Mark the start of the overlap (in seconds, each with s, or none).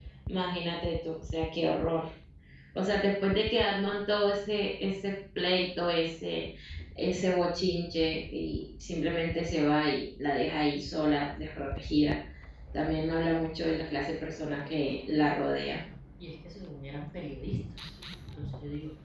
none